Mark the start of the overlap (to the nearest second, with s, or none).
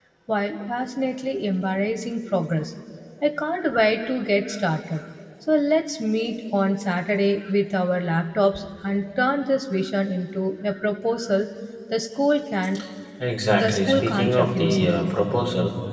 14 s